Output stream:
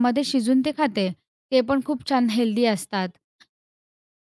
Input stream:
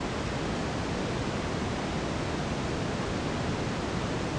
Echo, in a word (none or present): none